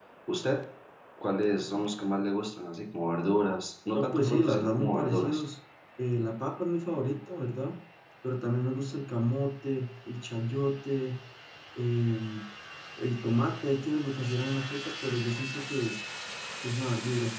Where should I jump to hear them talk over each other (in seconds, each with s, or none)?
3.9 s